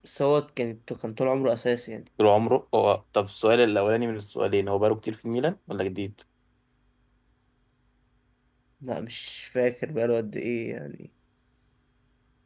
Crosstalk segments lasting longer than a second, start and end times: none

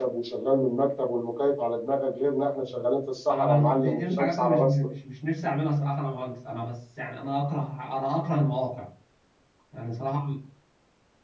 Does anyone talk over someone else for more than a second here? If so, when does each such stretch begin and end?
3.3-4.9

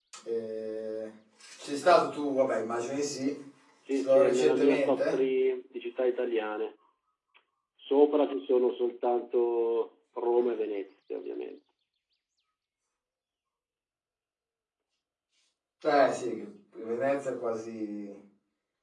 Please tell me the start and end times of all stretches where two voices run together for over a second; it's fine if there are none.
3.9-5.2

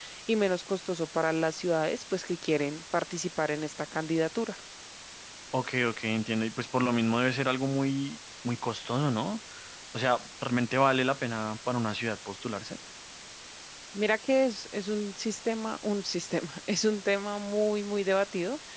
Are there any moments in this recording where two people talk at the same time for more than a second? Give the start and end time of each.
none

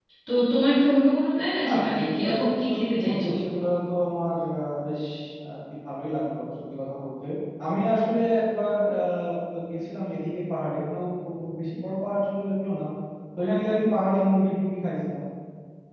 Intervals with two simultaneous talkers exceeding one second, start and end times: 1.6-3.3

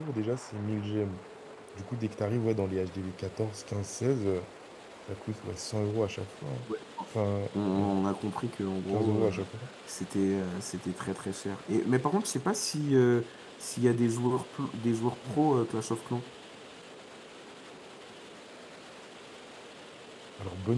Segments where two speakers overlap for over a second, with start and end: none

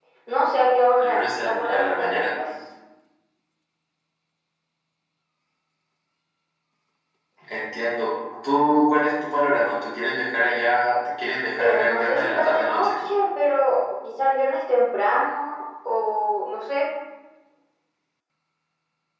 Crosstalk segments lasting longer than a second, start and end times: 1.0-2.2, 11.6-12.9

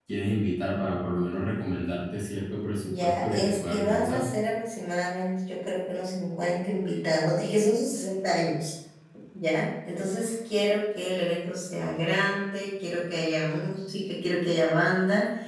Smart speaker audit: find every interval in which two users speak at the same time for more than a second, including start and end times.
2.8-4.2

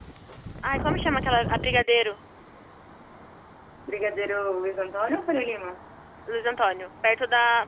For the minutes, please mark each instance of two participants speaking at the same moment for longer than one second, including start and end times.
none

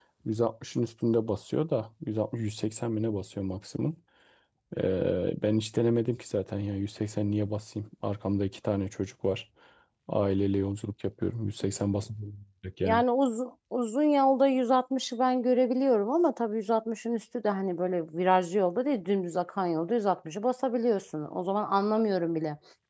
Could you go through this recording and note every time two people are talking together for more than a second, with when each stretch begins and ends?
none

